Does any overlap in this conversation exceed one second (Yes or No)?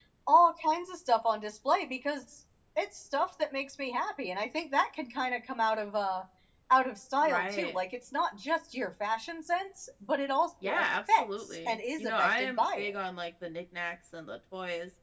Yes